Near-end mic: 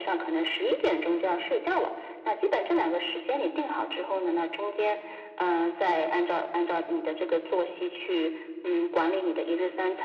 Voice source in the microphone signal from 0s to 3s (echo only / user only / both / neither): echo only